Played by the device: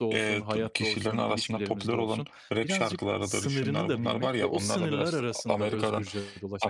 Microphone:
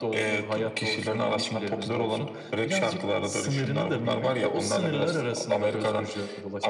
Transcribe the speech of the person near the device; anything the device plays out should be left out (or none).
none